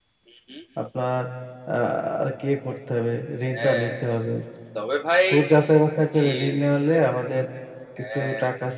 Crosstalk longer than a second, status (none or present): none